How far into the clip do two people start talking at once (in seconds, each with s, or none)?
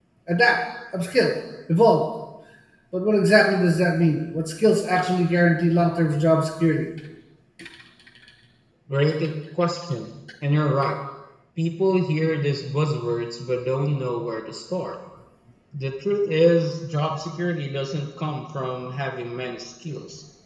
none